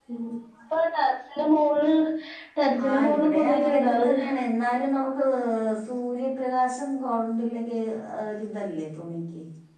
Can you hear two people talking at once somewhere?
Yes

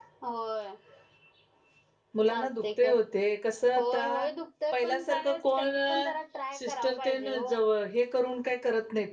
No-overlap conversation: No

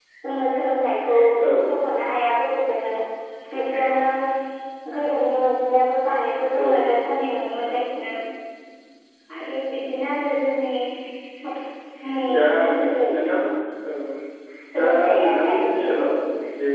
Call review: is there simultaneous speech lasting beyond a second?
Yes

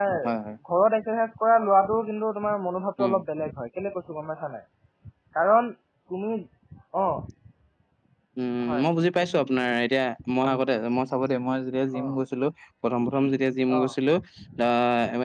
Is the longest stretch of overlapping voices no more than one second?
Yes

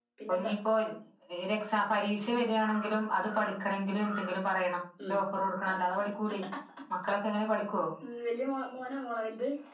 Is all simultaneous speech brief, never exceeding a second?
Yes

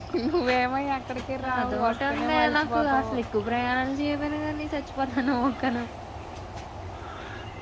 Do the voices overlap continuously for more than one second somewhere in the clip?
Yes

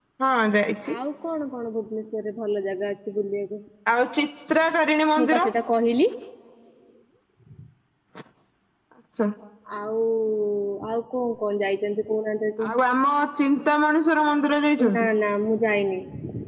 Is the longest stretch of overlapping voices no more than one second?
Yes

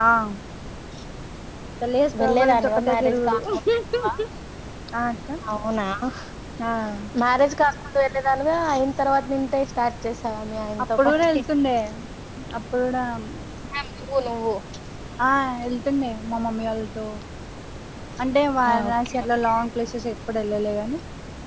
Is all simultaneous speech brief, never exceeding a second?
No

